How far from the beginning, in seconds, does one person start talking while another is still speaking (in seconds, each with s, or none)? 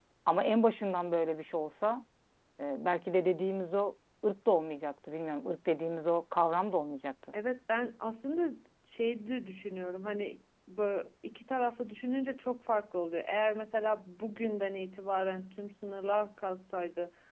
none